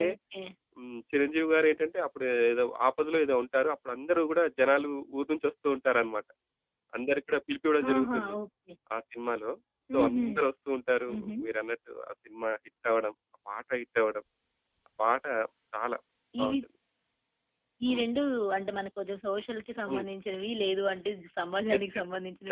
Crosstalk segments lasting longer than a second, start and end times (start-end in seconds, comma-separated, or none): none